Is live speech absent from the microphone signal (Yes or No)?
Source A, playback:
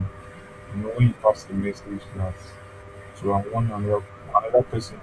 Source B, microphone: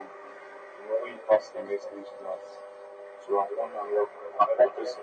Yes